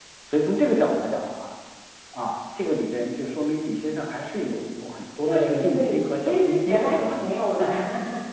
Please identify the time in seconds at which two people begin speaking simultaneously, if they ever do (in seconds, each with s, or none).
5.3 s